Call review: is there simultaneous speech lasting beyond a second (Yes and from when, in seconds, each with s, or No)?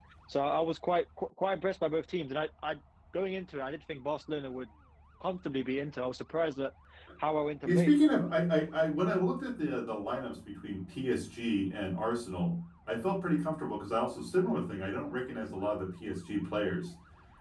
No